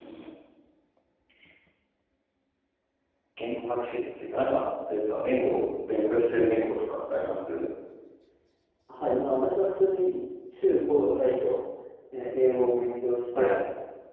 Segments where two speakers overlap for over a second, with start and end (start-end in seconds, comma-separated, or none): none